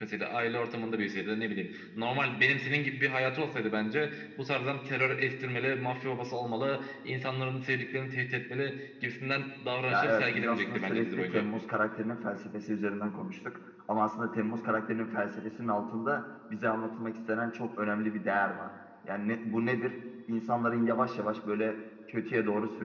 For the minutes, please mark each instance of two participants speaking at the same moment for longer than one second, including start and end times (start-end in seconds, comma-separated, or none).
9.9-11.5